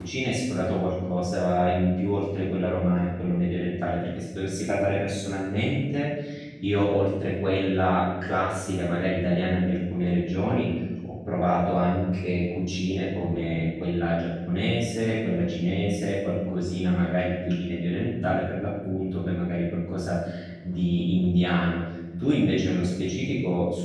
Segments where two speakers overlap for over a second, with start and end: none

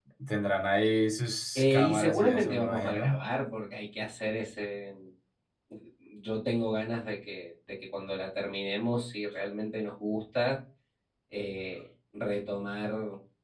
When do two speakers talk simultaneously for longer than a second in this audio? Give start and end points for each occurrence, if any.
1.6-3.2

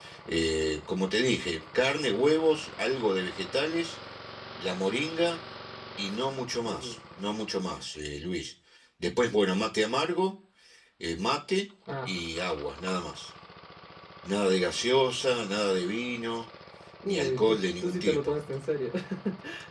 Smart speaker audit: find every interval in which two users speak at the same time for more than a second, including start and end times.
17.1-18.3

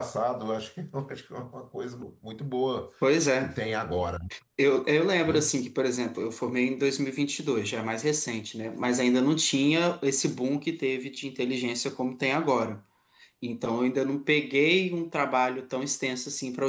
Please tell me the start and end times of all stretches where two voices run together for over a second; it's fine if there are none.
none

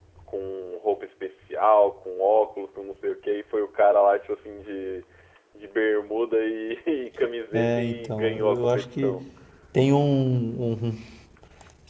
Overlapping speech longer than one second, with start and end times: 7.5-9.2

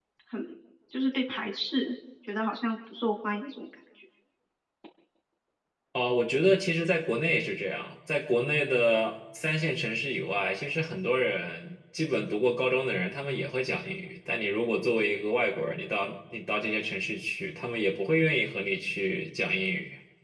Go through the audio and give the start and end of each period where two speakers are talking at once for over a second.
none

